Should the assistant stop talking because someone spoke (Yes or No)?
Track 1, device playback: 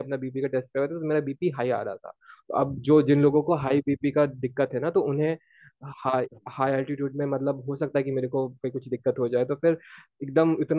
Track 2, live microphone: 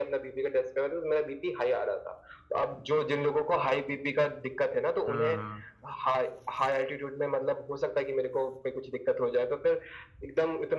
Yes